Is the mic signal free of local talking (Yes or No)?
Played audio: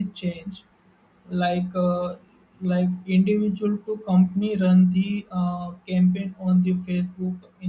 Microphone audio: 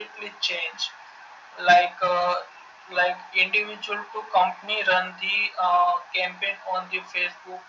Yes